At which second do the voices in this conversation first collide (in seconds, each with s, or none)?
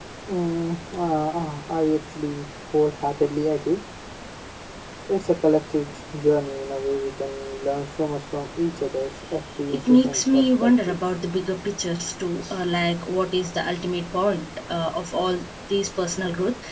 9.7 s